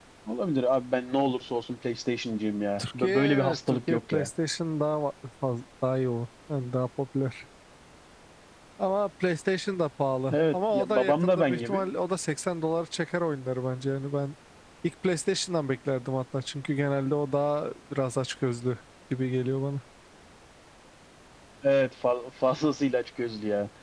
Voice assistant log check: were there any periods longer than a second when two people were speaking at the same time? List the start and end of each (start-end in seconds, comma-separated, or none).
2.8-4.3, 10.3-11.9